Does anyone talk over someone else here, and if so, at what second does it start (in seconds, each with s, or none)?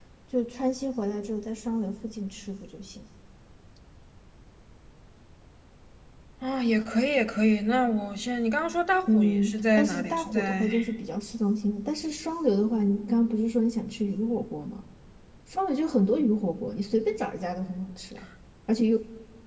9.1 s